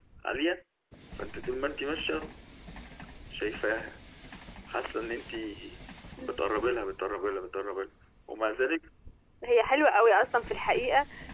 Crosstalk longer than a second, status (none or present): none